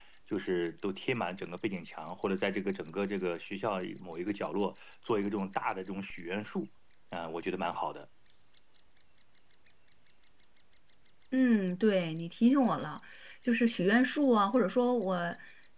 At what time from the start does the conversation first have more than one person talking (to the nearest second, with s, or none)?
none